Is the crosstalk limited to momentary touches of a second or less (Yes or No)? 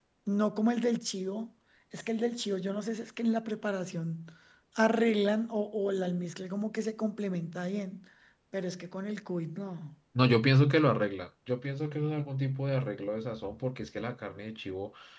Yes